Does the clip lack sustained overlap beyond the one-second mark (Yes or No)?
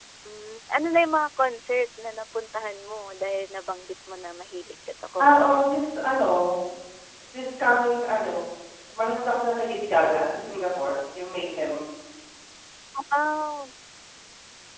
Yes